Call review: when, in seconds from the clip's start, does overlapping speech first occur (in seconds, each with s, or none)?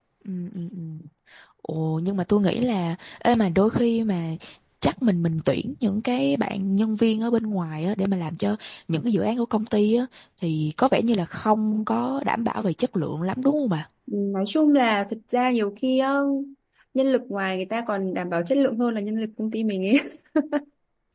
none